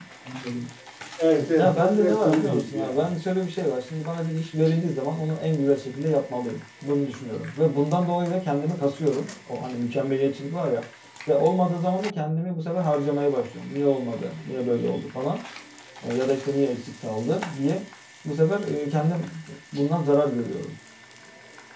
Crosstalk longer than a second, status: present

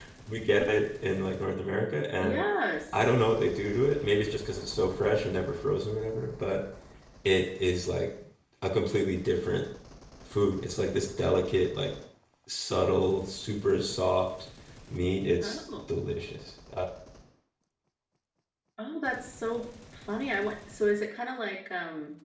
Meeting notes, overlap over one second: none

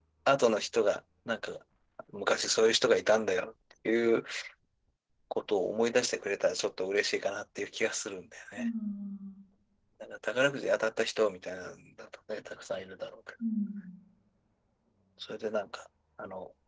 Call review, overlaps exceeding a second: none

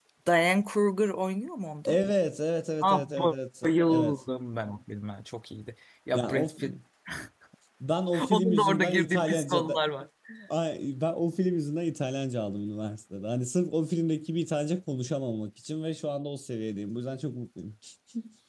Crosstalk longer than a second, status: present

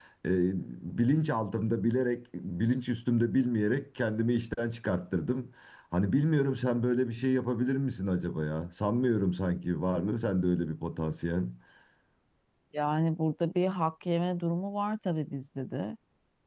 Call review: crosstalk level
none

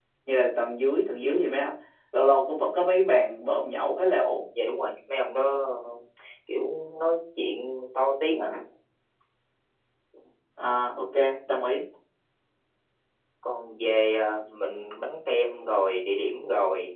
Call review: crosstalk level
none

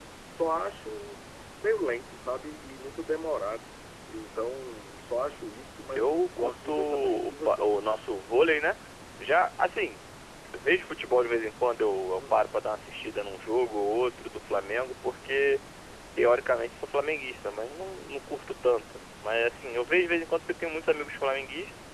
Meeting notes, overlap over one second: present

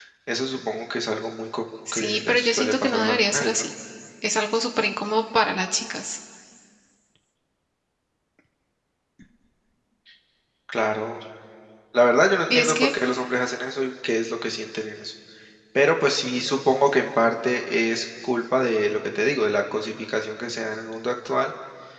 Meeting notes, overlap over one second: present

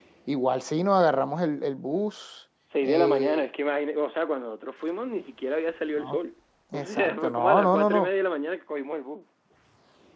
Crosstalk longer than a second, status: present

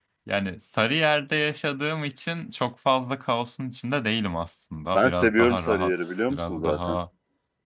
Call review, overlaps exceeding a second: present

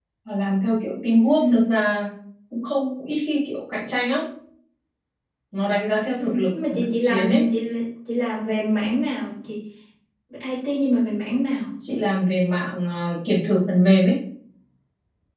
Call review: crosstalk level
present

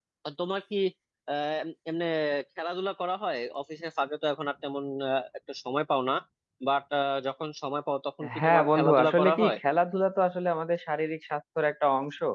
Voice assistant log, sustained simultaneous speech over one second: present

